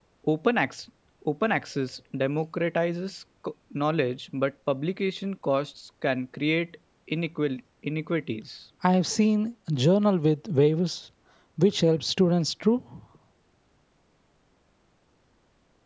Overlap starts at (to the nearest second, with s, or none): none